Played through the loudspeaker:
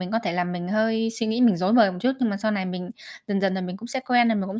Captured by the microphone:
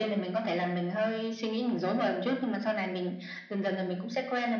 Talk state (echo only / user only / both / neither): echo only